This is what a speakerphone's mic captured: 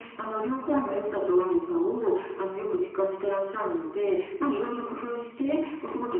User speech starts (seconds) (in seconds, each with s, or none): none